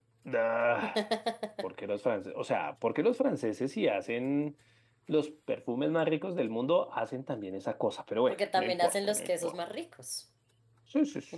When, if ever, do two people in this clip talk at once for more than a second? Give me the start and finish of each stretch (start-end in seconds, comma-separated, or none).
8.3-9.6